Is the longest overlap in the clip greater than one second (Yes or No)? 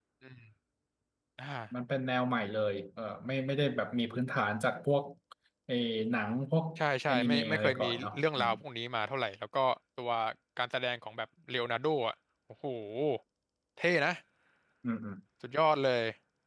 Yes